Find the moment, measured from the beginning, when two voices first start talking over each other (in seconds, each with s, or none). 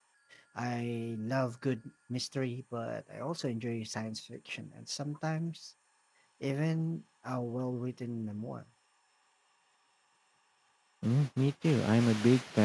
none